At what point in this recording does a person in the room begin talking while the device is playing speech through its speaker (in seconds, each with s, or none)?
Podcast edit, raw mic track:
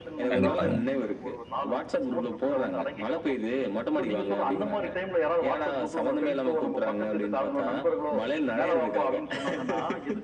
0.3 s